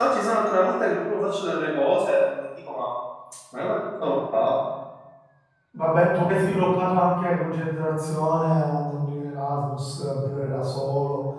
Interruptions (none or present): none